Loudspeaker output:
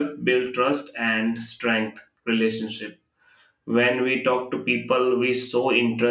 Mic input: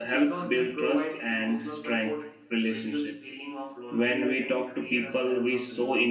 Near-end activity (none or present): present